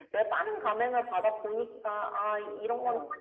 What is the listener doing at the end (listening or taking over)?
listening